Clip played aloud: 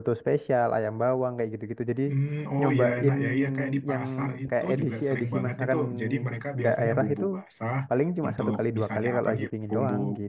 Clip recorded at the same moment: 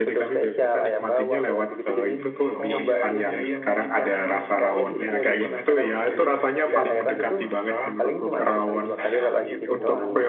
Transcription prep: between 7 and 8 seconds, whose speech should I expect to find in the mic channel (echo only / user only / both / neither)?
both